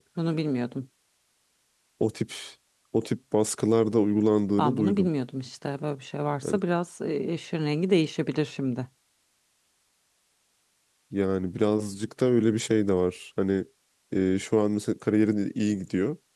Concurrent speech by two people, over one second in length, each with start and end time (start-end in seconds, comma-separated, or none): none